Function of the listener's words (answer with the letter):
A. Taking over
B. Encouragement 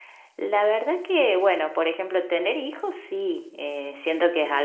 B